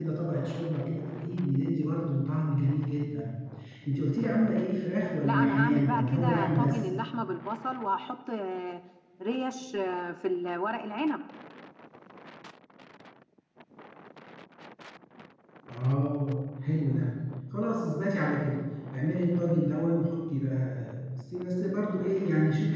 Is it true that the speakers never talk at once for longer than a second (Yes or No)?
No